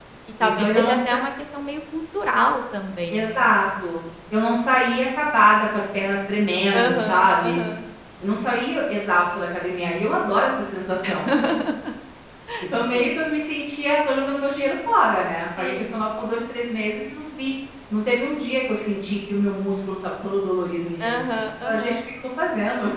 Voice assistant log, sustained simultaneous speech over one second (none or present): present